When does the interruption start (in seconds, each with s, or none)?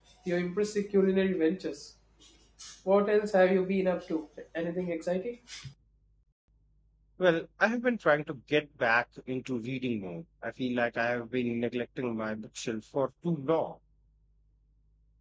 none